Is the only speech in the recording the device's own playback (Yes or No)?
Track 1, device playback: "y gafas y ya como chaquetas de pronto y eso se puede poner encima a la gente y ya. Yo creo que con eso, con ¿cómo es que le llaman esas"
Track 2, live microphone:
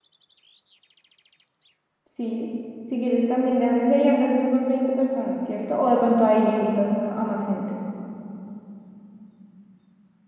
No